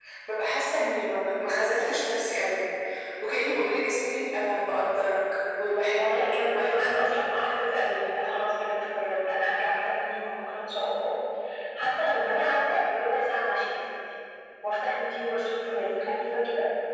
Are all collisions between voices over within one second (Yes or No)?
No